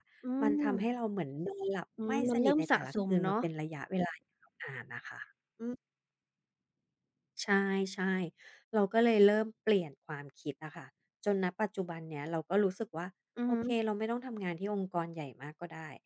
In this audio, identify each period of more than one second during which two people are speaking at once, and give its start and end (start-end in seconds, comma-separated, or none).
2.0-3.3